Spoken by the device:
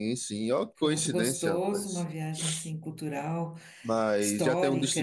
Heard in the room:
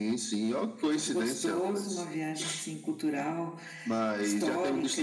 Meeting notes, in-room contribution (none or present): none